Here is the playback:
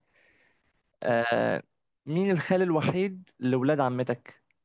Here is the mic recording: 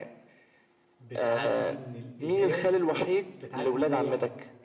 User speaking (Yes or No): Yes